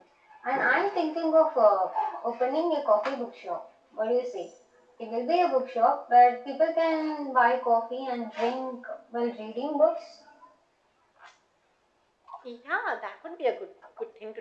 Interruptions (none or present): none